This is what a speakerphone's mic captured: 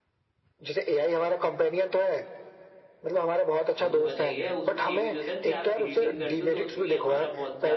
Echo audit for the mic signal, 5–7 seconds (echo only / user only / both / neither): both